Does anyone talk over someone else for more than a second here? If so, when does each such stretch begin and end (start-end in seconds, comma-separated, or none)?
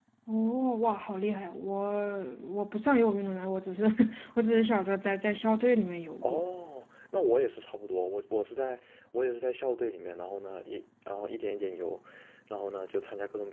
none